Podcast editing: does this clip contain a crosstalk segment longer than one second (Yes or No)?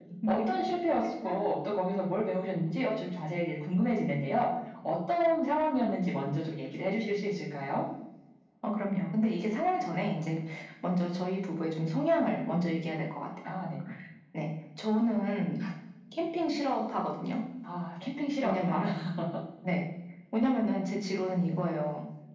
No